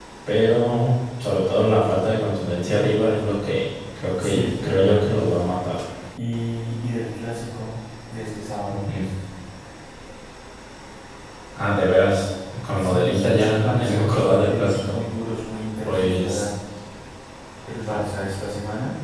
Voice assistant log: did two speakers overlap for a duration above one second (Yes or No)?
Yes